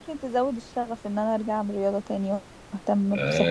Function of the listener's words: taking over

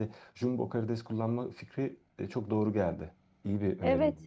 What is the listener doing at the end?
taking over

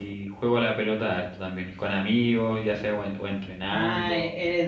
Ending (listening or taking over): taking over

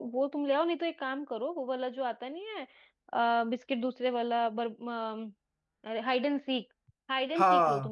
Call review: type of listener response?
listening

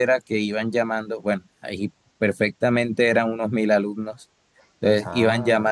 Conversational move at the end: listening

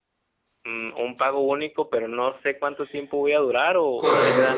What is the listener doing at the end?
taking over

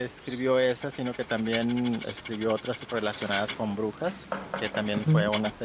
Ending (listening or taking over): listening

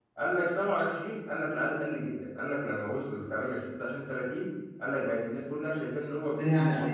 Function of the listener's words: taking over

